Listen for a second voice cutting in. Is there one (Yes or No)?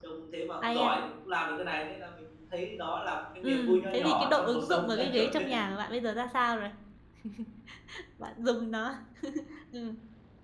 Yes